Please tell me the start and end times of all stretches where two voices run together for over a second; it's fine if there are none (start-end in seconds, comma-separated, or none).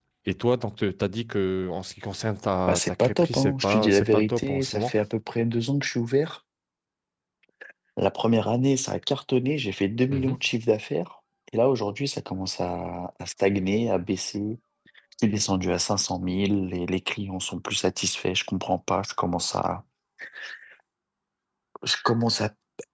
2.7-4.9